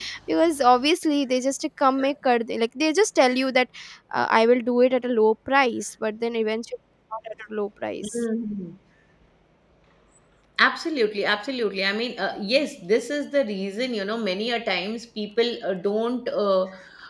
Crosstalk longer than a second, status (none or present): none